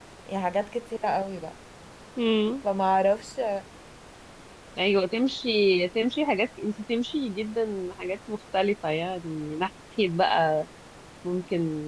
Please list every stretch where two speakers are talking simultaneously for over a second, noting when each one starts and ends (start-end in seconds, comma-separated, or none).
none